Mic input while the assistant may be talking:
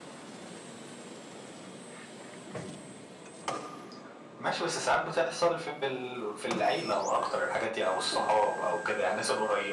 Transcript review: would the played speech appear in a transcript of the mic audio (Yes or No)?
Yes